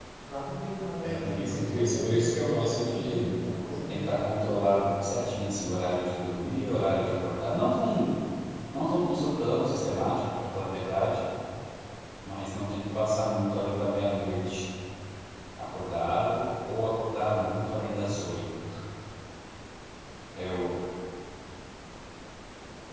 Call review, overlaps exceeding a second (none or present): present